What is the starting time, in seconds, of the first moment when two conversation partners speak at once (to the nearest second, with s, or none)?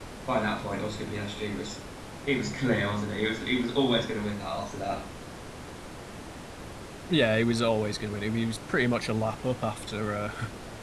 none